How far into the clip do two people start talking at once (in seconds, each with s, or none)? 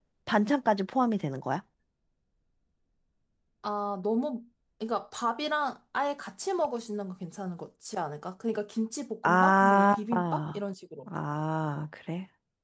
9.2 s